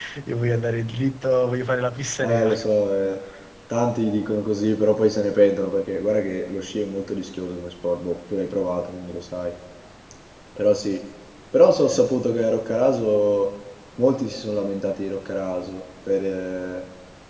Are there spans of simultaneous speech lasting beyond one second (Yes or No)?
No